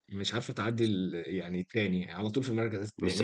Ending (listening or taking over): taking over